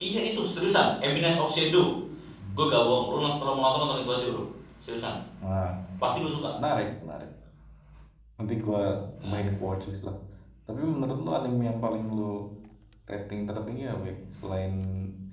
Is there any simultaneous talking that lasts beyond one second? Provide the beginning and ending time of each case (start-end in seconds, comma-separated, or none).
none